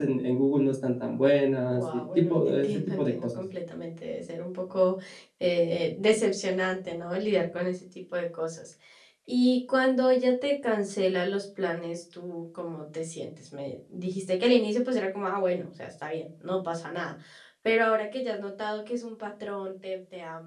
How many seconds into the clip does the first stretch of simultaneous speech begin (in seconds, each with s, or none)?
1.7 s